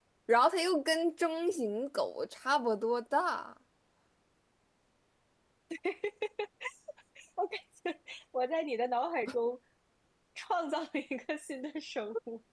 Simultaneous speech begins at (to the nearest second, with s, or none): none